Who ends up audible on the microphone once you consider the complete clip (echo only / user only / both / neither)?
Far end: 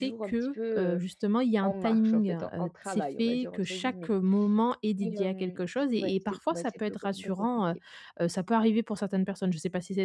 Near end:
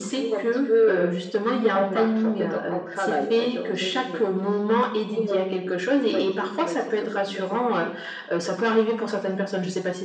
echo only